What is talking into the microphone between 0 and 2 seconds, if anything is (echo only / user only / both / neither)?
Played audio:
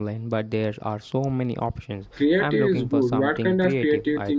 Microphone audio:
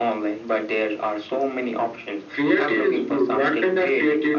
echo only